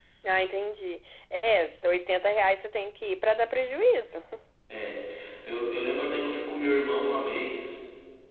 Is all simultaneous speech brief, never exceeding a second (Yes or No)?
Yes